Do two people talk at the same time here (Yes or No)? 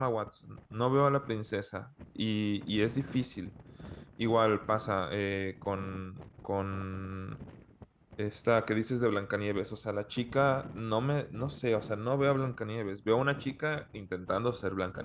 No